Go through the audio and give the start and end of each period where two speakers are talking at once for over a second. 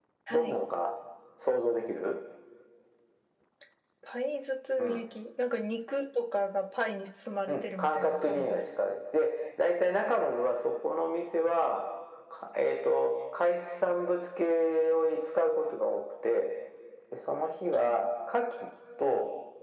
7.5-8.9

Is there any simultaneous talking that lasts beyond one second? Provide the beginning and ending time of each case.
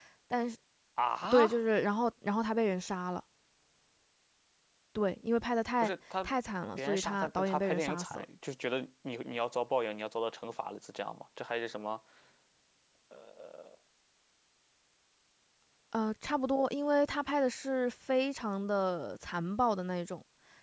6.8-8.2

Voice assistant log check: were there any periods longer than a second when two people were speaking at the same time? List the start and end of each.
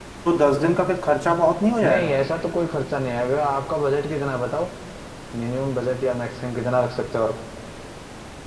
none

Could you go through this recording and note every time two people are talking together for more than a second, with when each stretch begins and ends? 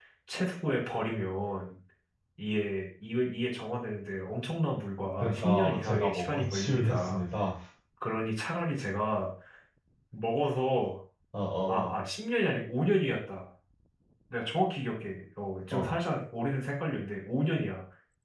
5.2-7.2

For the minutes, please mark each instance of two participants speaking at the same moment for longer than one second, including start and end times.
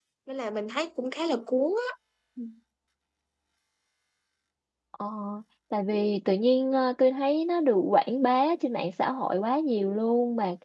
none

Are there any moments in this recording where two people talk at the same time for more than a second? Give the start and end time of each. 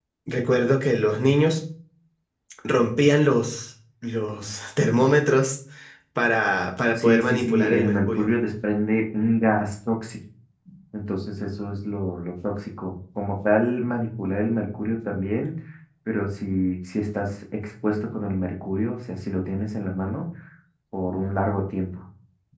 7.0-8.3

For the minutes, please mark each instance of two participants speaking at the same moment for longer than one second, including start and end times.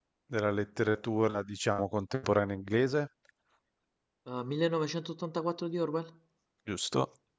none

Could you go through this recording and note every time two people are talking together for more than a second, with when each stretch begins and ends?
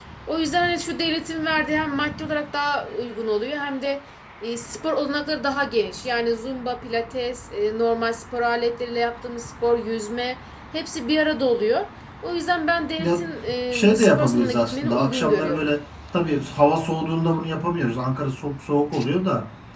13.7-15.7

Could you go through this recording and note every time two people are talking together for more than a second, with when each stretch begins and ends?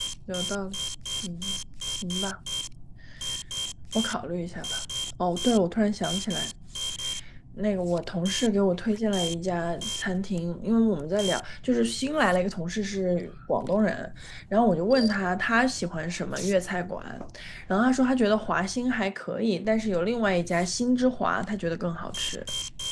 none

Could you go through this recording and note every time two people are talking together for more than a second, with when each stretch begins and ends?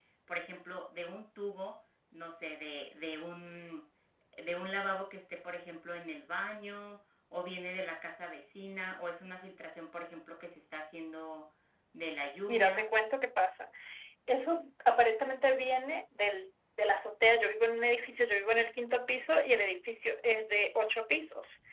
none

